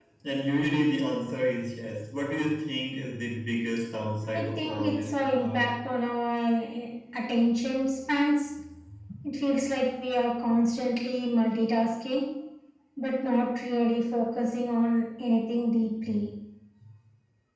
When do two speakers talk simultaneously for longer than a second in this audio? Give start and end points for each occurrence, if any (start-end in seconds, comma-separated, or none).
4.4-5.6